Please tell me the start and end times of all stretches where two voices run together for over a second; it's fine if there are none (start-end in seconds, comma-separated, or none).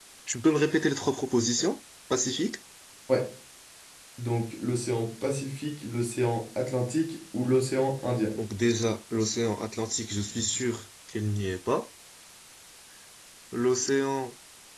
none